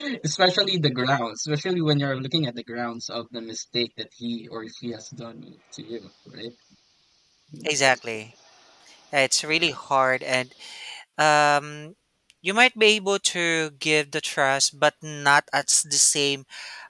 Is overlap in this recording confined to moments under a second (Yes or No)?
Yes